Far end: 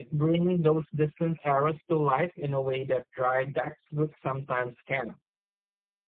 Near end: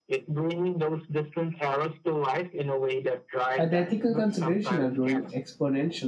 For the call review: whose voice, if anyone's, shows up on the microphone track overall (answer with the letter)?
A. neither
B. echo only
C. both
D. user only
C